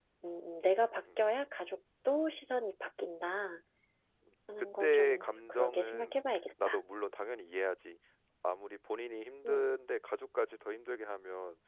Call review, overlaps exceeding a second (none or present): present